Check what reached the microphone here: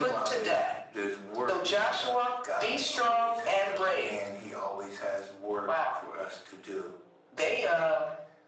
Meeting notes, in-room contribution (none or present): none